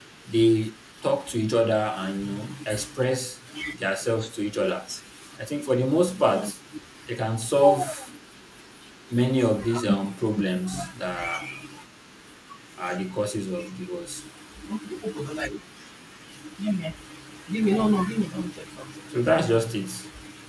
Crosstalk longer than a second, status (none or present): none